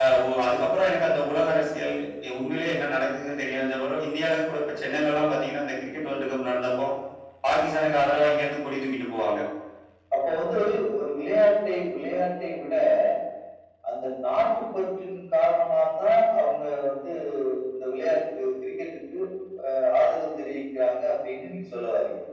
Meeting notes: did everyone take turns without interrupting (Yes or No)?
Yes